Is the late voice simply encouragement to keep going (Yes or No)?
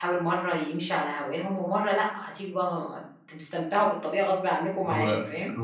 No